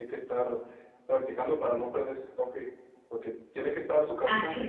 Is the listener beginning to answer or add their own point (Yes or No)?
No